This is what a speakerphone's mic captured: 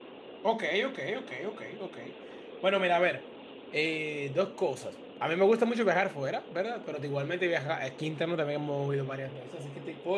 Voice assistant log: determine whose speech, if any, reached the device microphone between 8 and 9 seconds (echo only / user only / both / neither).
user only